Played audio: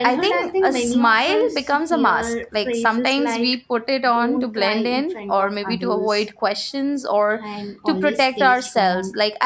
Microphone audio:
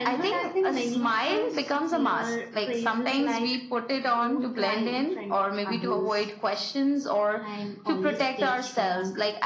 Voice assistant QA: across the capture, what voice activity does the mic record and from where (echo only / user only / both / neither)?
echo only